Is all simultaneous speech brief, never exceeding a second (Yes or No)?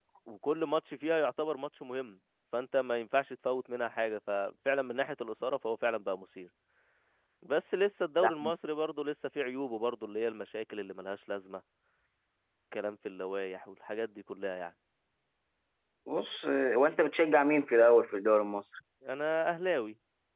Yes